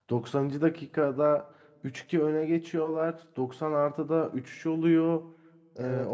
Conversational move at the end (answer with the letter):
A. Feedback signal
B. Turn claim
A